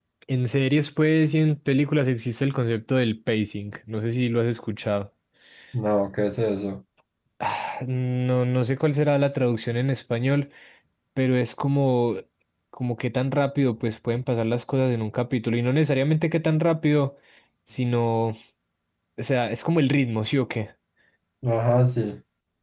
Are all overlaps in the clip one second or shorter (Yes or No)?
Yes